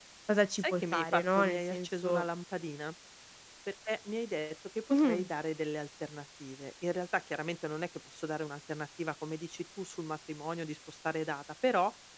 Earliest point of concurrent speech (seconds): 1 s

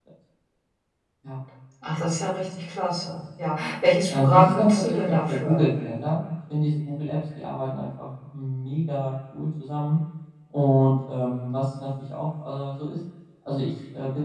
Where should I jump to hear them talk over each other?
4 s

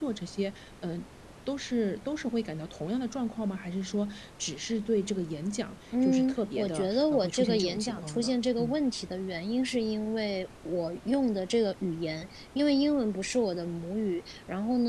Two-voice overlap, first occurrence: 6 s

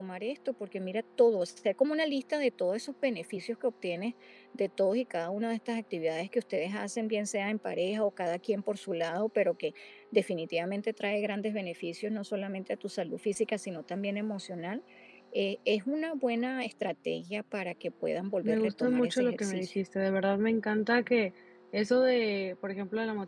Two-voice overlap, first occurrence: 18 s

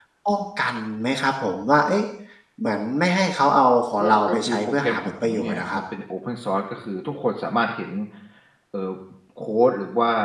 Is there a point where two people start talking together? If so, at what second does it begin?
4 s

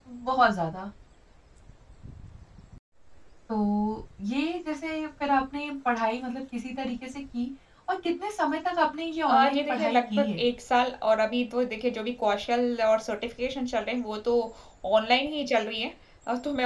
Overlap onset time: 9 s

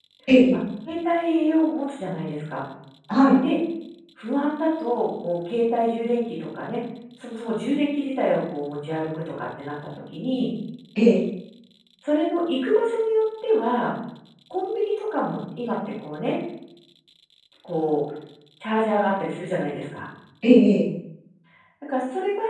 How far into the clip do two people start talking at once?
none

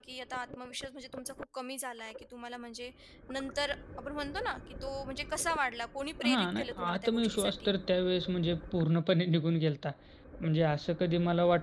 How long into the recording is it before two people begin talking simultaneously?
6 s

